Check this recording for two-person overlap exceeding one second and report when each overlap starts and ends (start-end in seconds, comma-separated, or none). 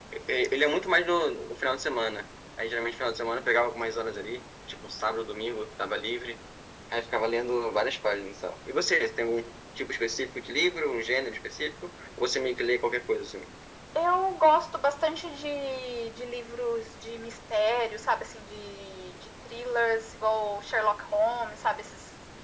none